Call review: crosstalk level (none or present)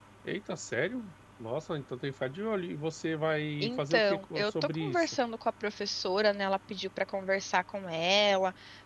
present